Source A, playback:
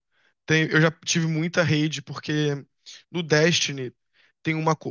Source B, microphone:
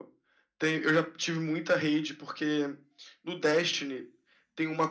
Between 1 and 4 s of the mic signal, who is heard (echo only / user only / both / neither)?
echo only